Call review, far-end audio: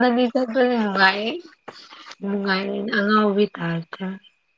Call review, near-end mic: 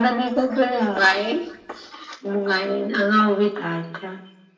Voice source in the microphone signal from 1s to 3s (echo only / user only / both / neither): echo only